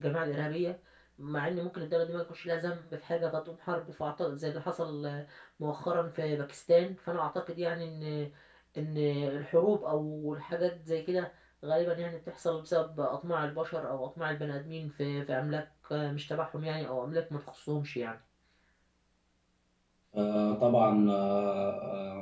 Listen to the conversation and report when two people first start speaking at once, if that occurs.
none

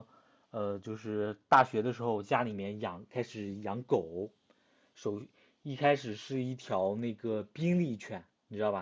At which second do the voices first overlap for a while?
none

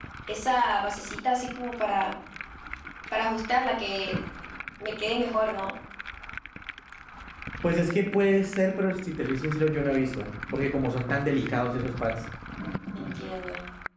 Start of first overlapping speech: none

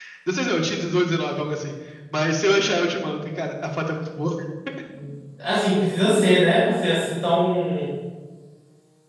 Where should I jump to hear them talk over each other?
none

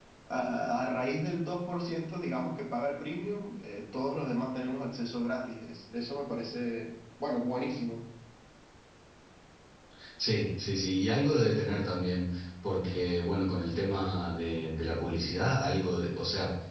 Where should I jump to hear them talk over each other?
none

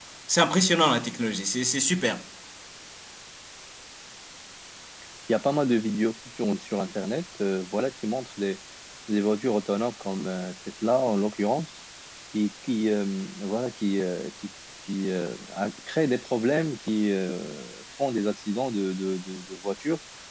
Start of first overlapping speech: none

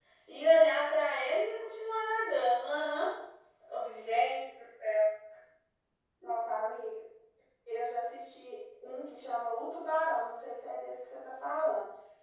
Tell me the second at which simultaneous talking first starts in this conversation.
none

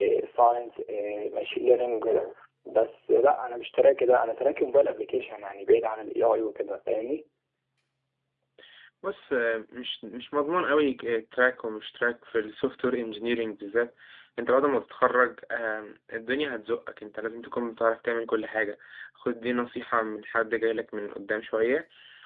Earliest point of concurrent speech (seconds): none

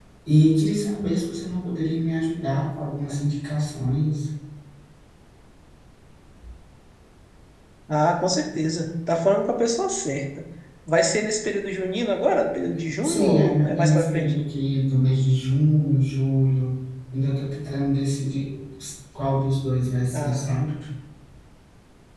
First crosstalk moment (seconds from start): 13.0 s

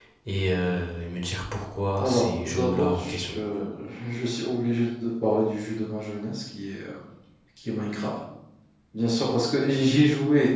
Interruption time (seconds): 2.0 s

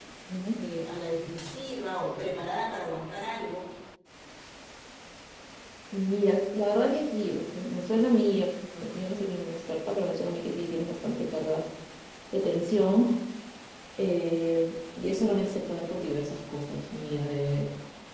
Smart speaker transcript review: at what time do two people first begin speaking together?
none

